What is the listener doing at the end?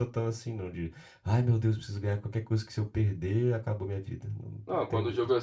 taking over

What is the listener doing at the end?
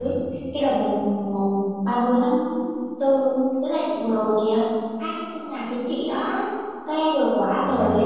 listening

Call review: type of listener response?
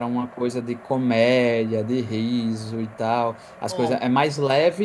listening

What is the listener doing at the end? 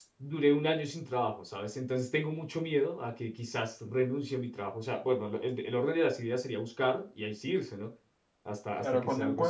taking over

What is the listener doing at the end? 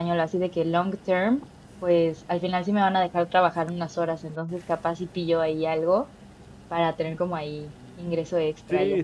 taking over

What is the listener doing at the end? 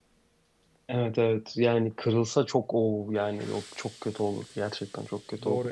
taking over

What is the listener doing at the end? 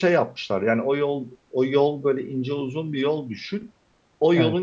listening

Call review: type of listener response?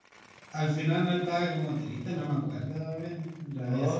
taking over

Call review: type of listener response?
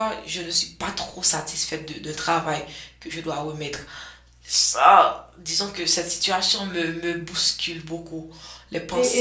taking over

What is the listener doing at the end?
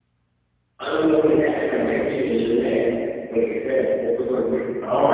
taking over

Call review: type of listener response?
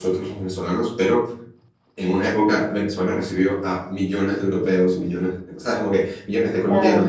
listening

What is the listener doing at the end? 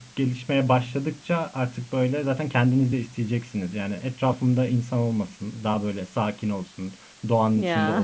listening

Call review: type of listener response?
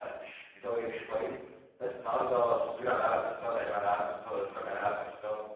listening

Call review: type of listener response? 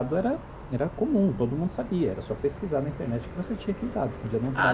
taking over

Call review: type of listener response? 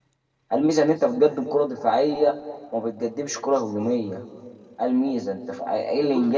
listening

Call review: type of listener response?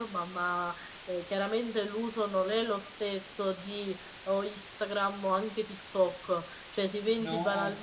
listening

